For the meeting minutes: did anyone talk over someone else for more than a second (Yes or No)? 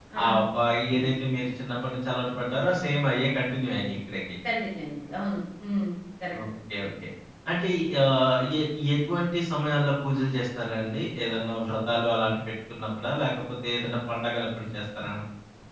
No